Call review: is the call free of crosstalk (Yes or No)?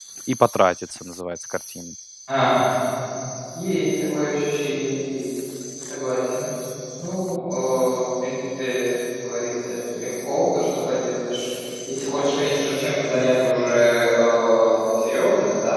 Yes